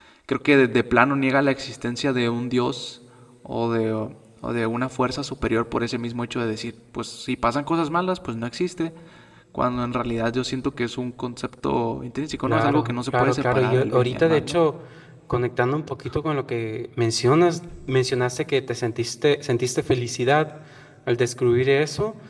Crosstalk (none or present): present